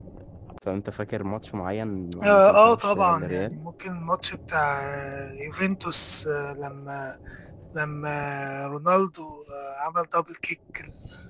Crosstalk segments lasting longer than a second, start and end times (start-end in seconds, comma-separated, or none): 2.2-3.6